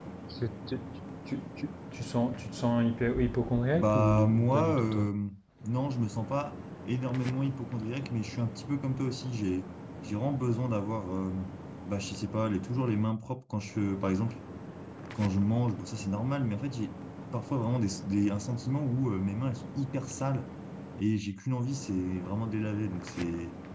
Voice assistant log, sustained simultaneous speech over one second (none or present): present